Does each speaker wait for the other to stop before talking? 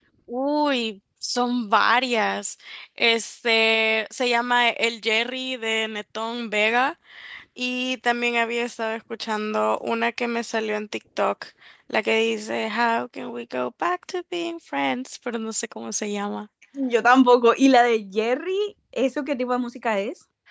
Yes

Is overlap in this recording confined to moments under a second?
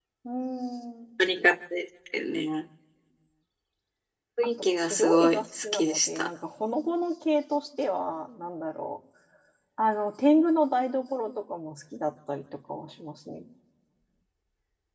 No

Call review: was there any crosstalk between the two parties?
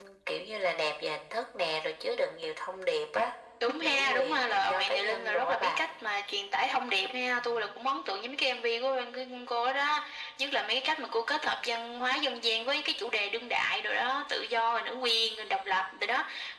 Yes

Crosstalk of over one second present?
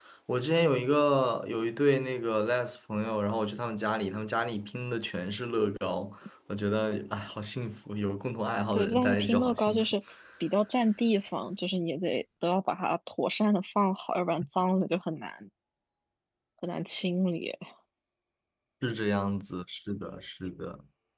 Yes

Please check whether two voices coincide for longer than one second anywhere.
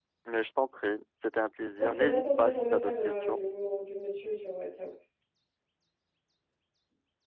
Yes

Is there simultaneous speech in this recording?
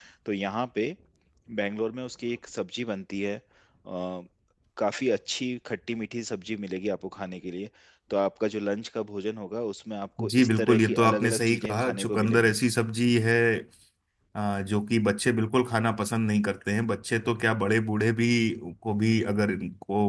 Yes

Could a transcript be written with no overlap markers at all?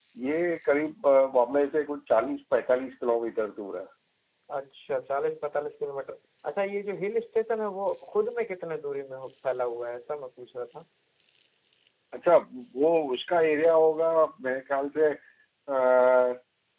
Yes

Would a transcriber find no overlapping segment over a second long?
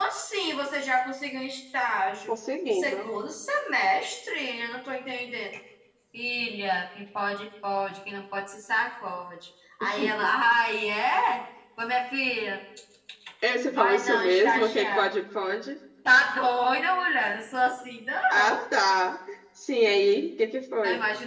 No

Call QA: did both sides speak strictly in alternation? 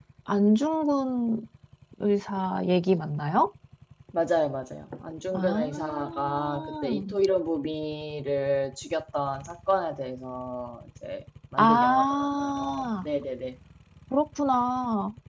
No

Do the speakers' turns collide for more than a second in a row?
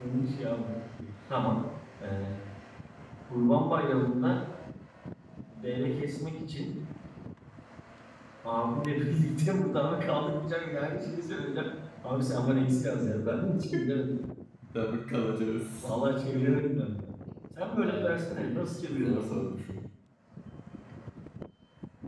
Yes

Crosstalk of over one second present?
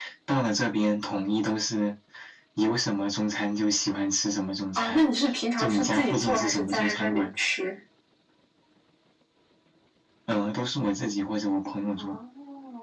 Yes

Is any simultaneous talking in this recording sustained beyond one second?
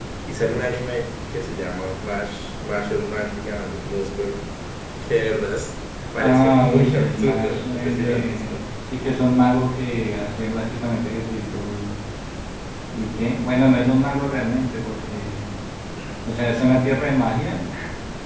Yes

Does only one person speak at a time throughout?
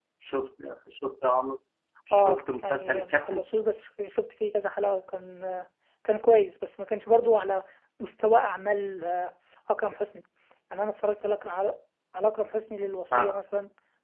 No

